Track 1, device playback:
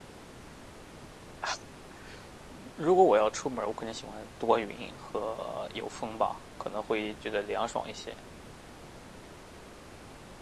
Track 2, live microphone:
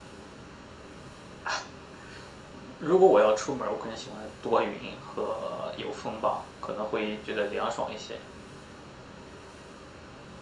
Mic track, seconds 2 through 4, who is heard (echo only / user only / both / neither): echo only